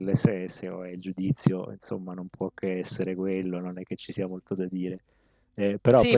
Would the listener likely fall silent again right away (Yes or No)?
No